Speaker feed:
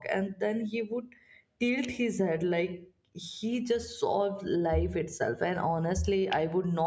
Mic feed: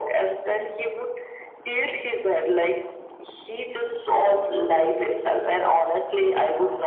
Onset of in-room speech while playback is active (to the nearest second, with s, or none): none